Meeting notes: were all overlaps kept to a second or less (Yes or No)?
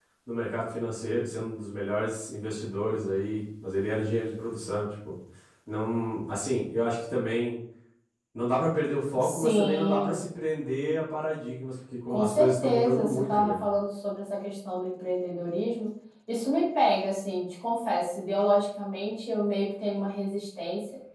No